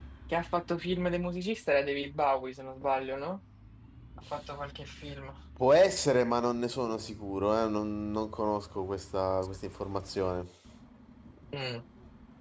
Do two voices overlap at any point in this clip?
No

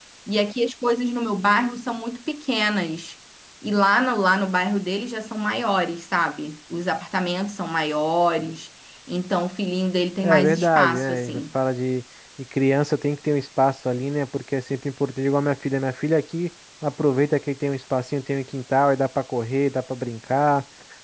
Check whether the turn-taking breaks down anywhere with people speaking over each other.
Yes, from 10.2 s

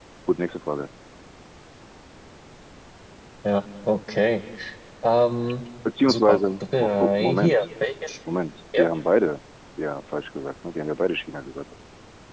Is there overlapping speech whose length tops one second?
Yes, from 6.1 s

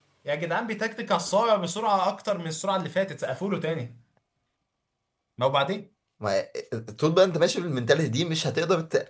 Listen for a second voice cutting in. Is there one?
No

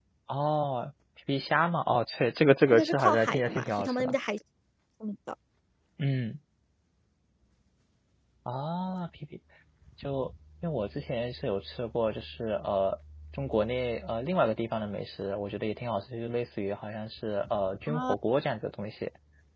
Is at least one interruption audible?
Yes, from 2.7 s

